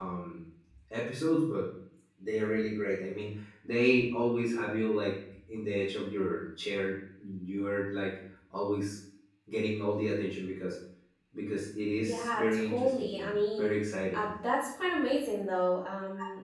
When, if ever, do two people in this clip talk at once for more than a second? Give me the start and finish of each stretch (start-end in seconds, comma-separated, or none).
12.0-13.7